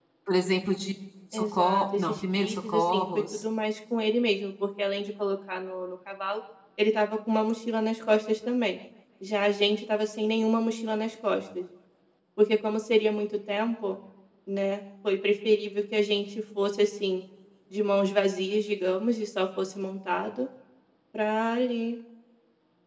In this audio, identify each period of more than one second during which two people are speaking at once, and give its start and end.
1.3-3.4

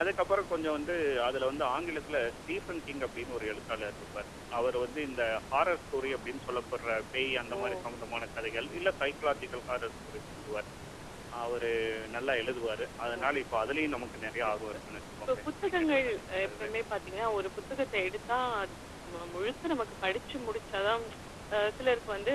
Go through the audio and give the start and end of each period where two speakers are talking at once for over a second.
15.3-16.7

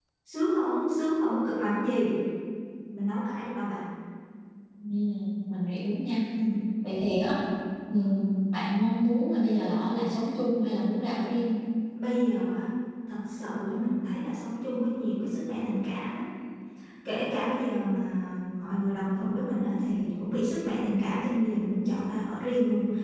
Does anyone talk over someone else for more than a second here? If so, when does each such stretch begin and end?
none

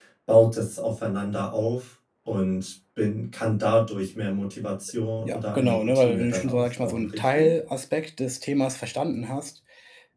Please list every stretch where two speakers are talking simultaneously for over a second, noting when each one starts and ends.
5.2-7.5

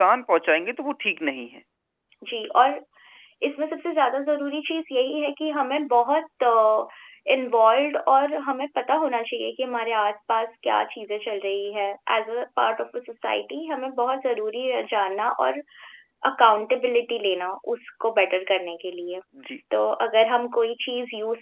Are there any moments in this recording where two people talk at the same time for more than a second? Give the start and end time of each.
none

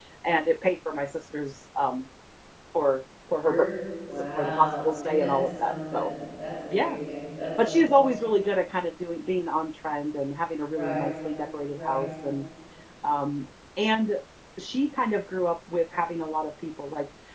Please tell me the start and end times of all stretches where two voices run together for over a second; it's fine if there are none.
4.3-6.1

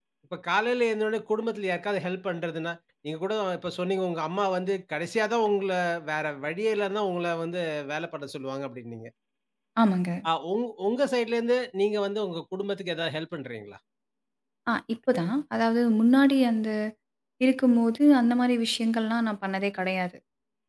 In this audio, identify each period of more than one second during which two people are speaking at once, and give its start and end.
none

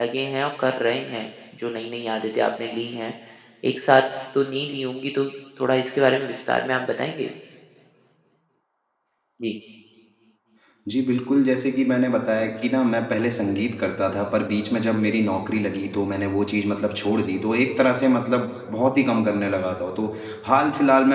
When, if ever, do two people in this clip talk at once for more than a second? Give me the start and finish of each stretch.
none

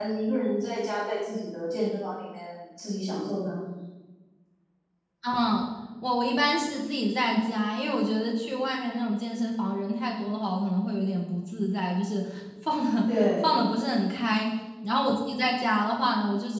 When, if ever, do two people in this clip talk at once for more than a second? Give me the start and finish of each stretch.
none

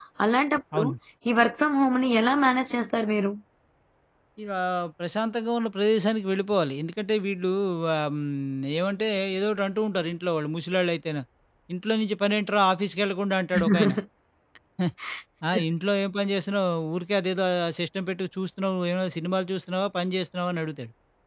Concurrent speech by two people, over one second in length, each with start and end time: none

